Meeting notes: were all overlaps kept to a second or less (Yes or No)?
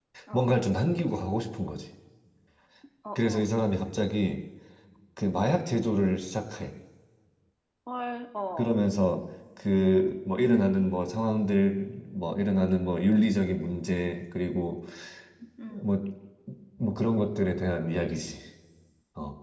Yes